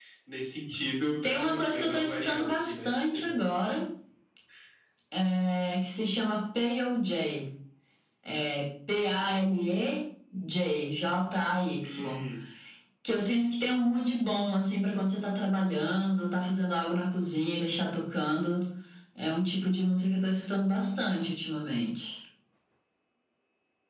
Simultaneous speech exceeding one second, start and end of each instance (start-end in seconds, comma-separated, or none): 1.2-2.9